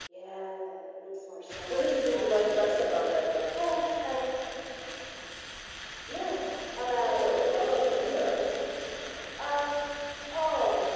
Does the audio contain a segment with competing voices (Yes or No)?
Yes